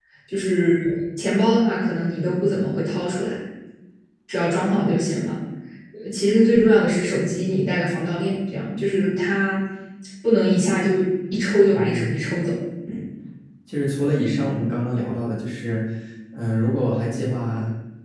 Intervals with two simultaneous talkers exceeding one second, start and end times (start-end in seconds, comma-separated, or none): none